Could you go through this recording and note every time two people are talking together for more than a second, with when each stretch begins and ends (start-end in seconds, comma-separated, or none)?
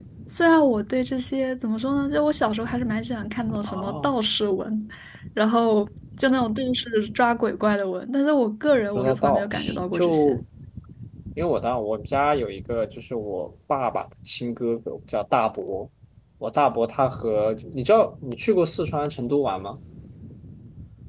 8.9-10.4